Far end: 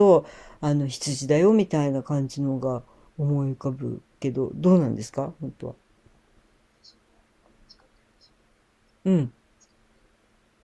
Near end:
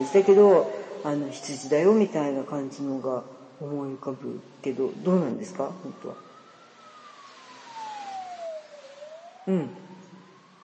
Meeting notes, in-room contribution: none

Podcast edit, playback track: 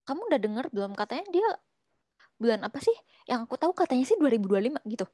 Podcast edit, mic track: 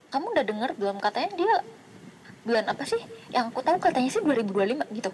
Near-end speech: none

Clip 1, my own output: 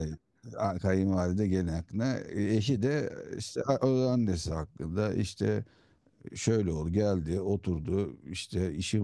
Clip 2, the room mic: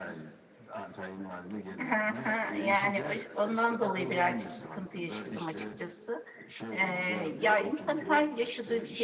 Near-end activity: present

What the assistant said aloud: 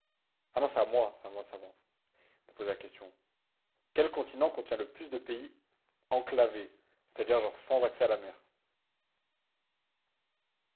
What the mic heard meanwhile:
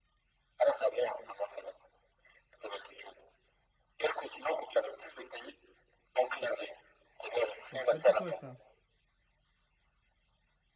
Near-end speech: present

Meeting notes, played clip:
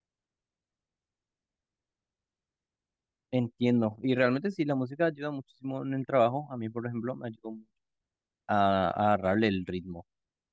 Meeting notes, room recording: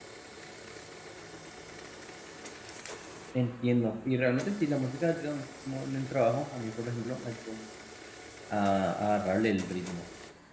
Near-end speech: none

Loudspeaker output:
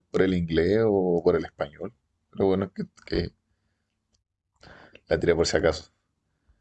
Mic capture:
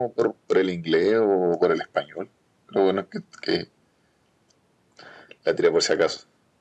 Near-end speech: none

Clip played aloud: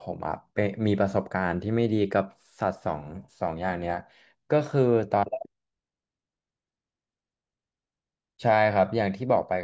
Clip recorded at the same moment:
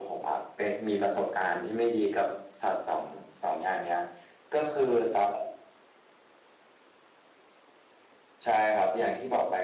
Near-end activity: none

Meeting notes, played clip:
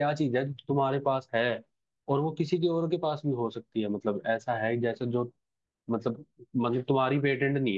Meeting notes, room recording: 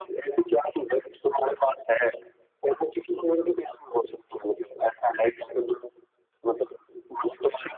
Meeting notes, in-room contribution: none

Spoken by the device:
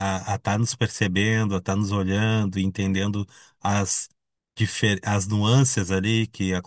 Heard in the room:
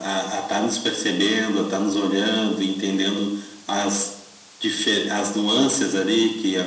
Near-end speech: none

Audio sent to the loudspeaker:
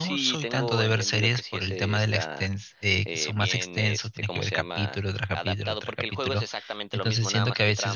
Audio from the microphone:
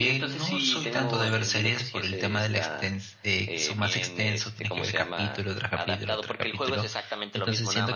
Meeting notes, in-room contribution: none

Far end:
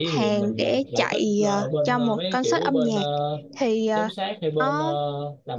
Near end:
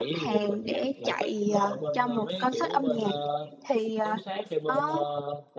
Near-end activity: none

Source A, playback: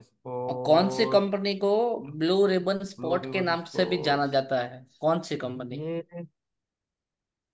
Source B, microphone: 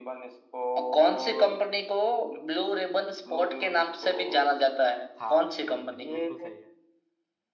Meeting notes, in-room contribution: present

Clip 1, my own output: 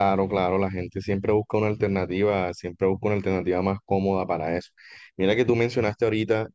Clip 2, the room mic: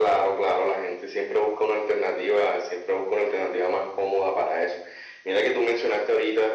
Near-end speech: none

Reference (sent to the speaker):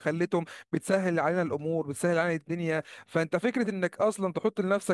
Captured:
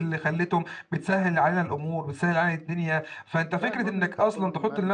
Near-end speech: present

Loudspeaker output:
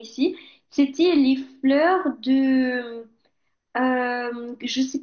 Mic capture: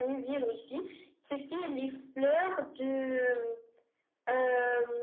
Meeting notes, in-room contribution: none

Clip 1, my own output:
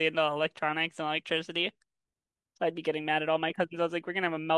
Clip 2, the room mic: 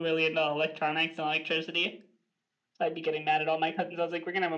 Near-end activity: none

